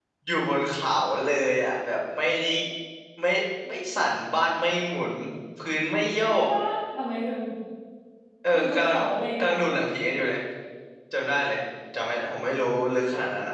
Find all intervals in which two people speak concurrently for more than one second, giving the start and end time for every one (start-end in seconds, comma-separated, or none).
none